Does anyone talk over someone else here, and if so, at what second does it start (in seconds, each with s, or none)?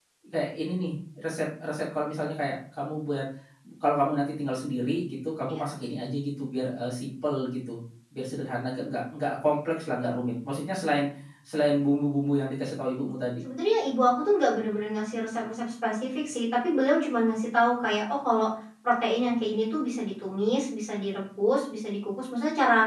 none